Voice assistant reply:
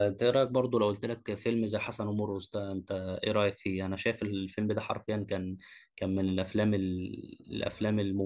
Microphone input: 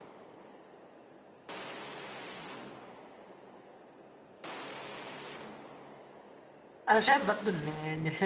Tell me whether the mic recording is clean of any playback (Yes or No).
Yes